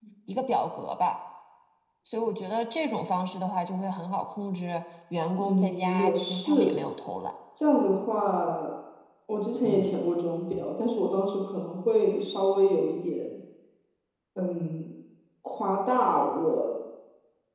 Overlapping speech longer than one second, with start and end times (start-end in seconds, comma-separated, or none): 5.4-6.8